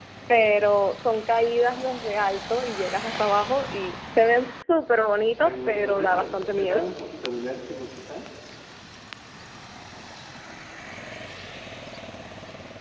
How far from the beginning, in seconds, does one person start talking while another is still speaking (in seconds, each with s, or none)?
5.4 s